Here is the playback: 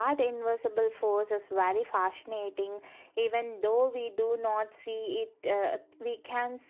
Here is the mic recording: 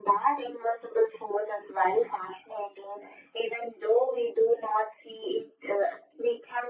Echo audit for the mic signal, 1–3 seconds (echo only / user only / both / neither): echo only